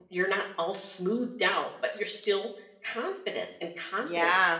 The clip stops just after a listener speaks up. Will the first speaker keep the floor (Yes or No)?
No